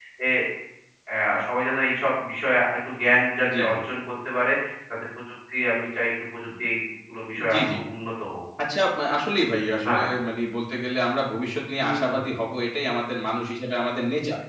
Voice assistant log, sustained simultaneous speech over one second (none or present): none